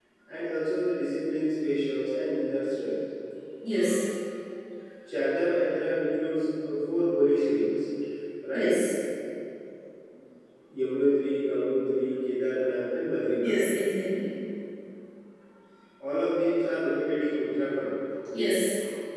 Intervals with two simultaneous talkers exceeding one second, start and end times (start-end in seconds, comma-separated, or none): none